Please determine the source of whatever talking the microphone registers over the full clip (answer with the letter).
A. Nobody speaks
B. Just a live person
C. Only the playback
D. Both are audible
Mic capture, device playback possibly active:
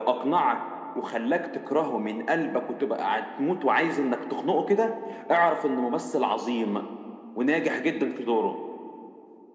C